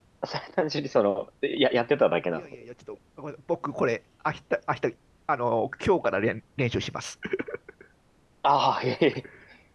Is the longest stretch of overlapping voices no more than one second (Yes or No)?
Yes